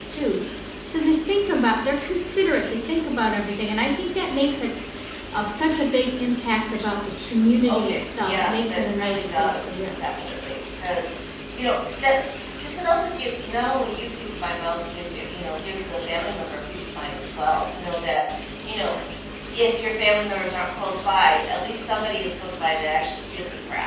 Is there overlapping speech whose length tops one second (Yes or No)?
Yes